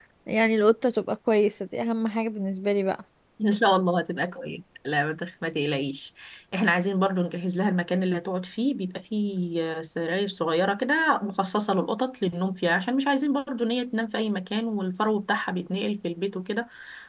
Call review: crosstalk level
none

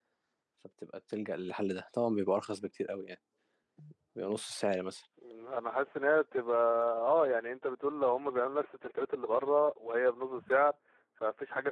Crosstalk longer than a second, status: none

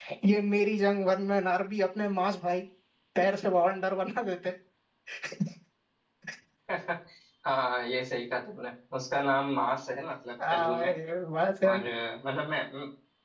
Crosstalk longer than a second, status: none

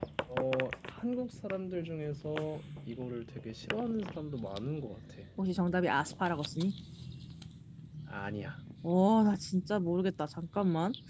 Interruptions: none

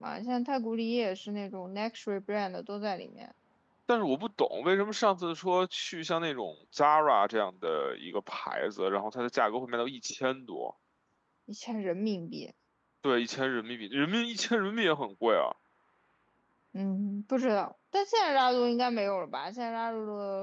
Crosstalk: none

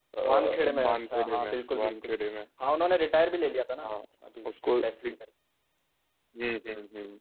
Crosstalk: present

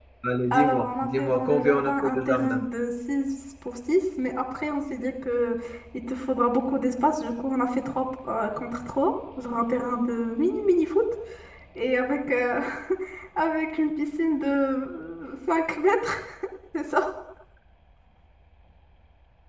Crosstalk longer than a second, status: present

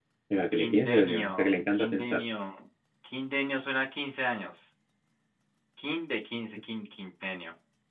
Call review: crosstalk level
present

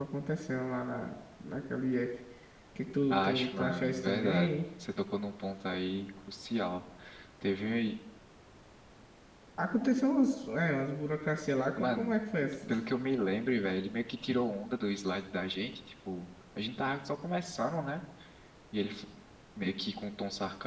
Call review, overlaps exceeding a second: present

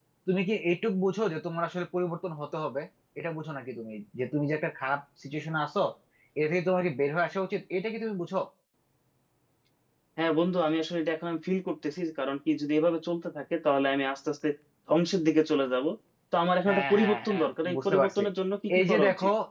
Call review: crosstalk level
present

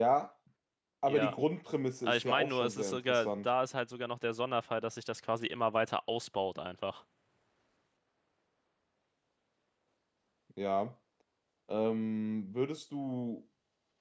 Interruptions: present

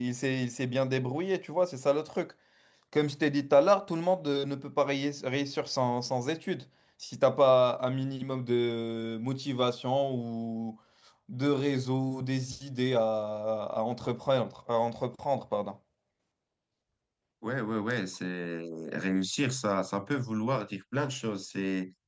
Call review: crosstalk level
none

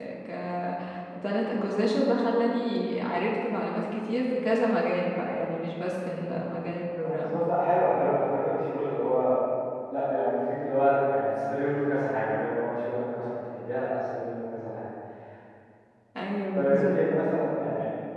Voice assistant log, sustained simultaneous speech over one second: none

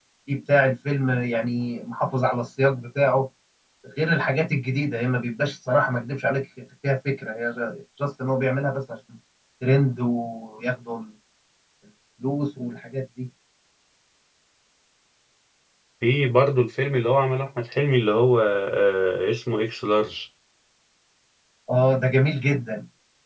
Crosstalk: none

